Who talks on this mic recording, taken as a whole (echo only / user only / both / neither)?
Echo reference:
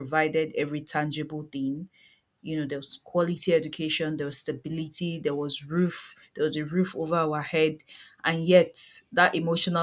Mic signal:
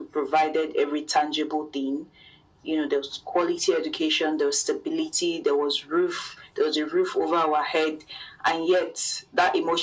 echo only